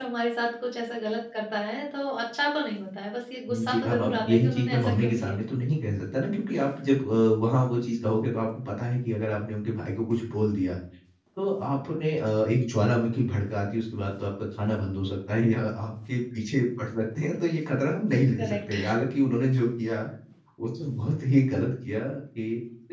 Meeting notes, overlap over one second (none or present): present